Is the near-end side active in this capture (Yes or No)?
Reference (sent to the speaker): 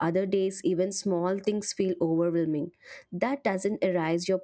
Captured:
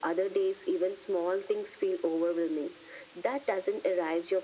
No